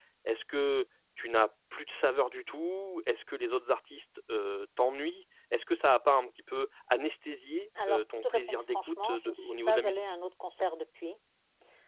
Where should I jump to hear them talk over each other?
8 s

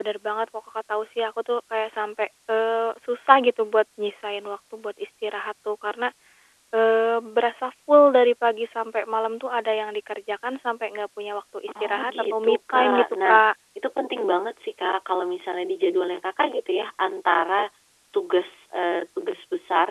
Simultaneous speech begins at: 12 s

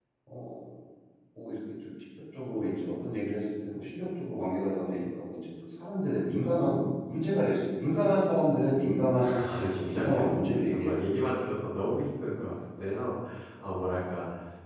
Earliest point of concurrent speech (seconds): 9 s

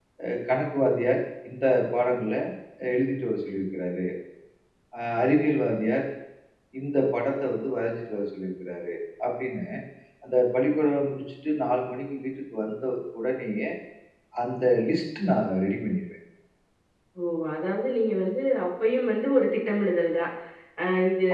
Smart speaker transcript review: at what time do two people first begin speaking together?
none

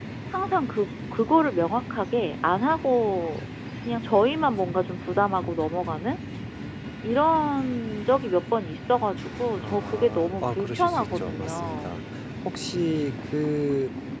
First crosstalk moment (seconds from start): 10 s

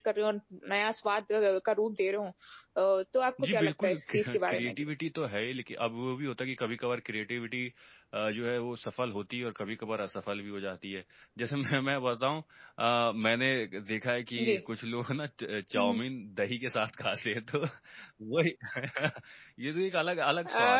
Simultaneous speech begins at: 3 s

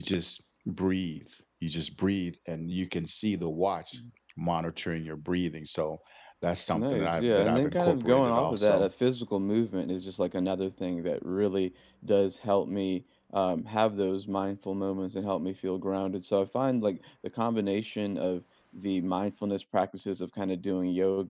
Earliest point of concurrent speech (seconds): 7 s

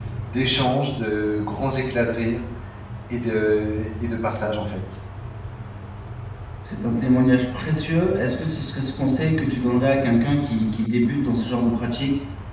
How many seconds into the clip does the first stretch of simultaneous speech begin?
none

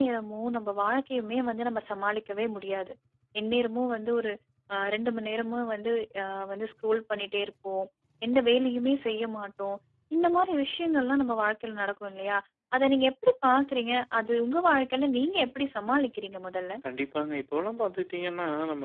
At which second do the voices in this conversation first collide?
none

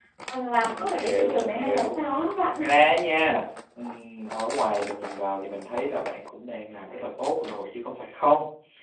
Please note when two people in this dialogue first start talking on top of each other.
1 s

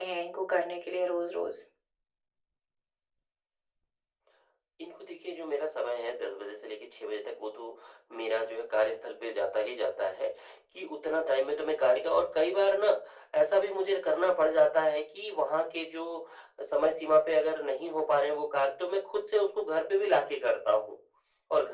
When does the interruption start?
none

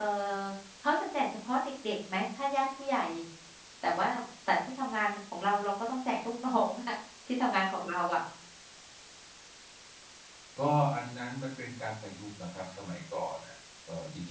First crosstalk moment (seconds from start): none

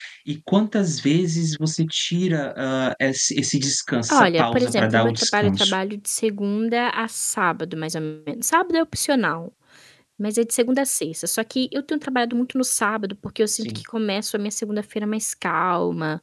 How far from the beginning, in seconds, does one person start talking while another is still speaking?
4 s

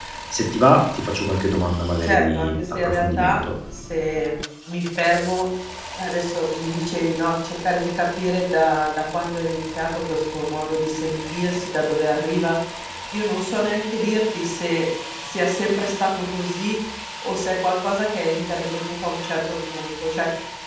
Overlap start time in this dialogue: 2 s

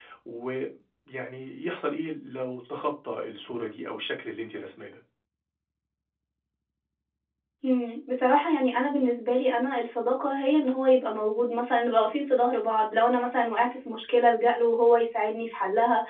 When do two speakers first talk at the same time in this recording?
none

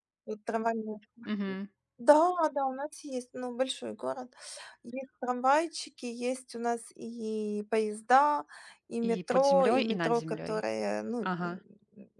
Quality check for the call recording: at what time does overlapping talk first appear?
9 s

